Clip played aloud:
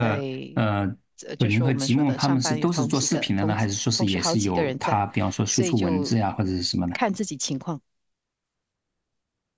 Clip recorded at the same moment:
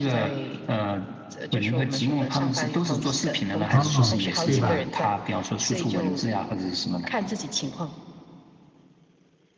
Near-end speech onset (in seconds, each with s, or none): 3.7 s